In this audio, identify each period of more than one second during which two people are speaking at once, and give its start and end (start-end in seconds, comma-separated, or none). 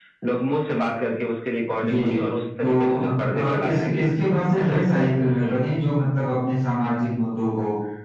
2.6-4.1